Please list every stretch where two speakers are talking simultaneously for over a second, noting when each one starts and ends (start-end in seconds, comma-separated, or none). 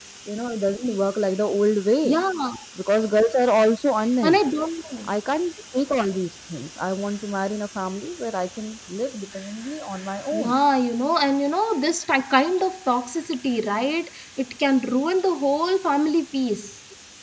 none